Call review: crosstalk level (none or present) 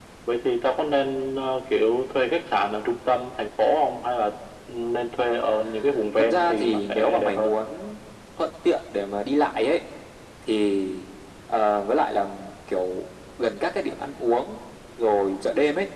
present